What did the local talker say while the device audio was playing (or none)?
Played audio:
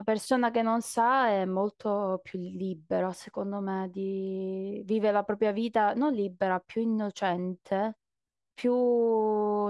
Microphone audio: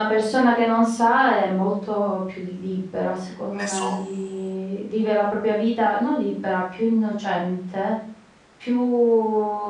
ne so.